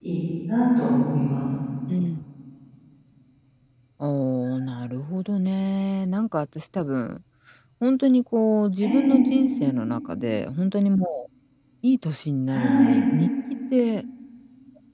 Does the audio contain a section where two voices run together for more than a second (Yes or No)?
No